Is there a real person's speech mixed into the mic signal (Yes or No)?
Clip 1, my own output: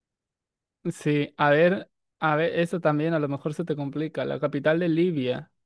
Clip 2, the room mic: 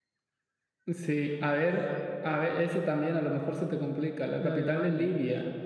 Yes